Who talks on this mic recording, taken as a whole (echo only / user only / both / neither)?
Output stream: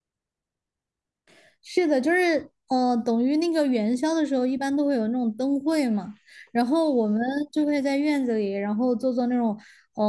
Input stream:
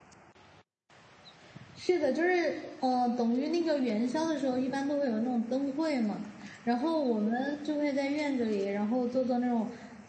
echo only